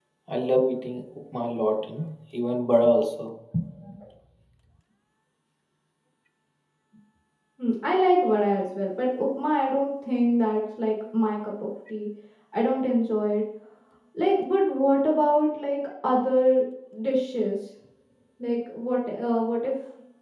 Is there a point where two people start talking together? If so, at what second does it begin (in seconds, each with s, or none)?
none